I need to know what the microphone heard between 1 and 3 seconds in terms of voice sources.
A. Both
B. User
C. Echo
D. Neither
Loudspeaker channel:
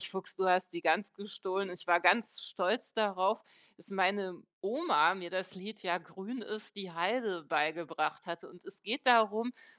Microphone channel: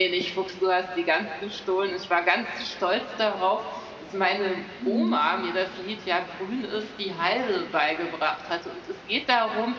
C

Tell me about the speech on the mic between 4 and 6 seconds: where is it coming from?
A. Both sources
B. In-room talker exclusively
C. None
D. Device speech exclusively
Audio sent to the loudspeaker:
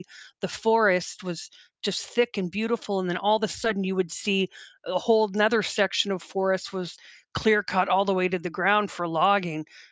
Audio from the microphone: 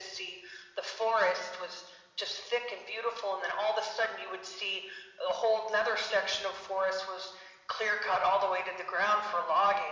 D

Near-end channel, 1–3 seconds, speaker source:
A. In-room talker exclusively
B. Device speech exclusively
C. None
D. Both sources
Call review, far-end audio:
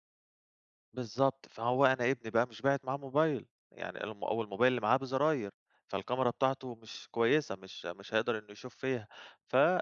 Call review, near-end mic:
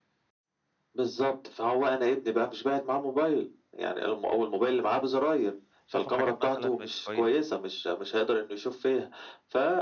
B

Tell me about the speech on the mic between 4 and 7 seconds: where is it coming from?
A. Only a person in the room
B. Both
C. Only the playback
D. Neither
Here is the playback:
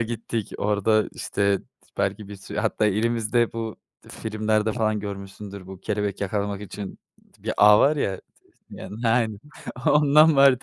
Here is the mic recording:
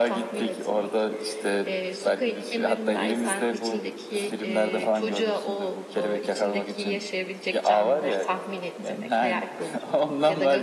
B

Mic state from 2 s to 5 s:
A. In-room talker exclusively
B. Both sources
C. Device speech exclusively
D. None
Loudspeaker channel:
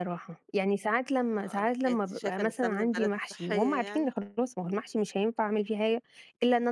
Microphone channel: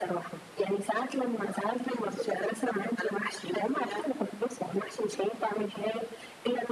C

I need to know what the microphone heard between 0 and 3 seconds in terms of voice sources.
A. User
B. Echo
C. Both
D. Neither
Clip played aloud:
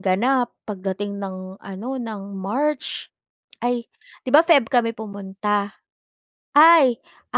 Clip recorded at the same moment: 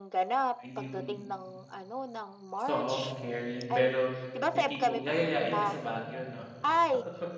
C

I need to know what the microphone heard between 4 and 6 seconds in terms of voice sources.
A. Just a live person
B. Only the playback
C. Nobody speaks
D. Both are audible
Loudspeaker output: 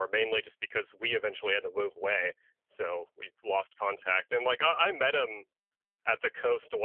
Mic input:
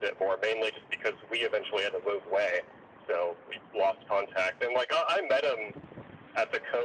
B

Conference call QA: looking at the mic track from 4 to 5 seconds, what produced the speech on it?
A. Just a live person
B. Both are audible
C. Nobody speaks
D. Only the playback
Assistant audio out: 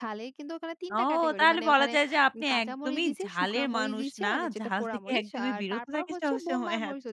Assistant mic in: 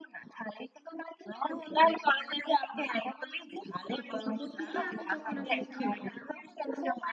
B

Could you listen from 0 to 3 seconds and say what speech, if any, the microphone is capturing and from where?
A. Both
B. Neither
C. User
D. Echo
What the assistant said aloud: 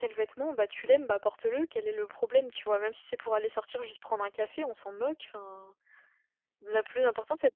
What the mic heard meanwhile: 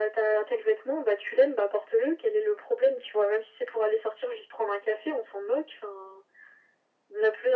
D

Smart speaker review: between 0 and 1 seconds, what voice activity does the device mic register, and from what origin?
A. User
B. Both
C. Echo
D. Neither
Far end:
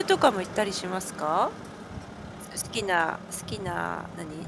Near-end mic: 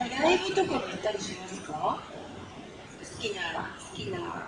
C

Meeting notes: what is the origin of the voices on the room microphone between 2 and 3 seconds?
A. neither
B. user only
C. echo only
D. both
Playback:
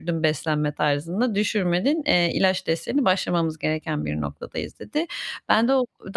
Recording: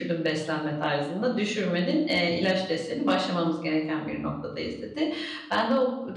C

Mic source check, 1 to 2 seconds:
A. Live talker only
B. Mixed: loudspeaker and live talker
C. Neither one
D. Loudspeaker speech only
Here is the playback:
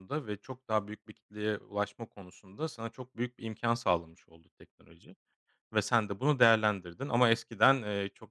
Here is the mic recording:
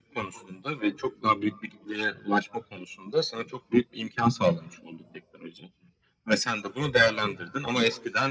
D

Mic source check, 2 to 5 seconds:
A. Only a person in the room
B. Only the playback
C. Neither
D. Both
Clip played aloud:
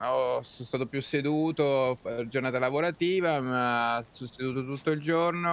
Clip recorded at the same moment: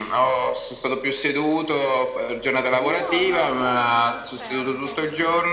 D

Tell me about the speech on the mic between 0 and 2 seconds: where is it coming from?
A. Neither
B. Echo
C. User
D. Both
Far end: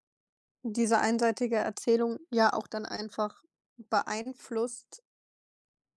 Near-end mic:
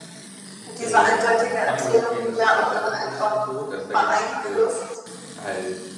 D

